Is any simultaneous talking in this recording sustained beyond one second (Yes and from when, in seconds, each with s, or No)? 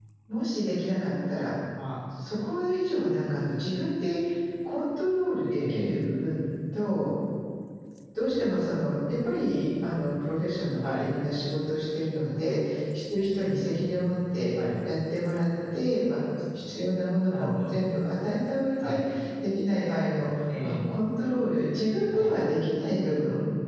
No